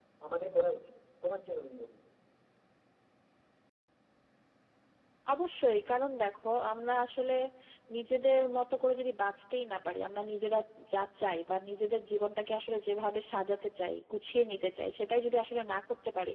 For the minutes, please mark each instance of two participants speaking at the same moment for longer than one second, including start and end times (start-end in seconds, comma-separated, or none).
none